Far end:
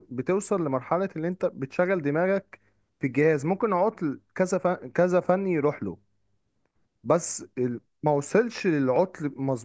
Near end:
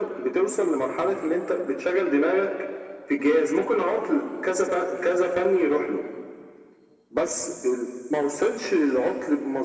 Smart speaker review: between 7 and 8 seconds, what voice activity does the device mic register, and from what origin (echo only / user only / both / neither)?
echo only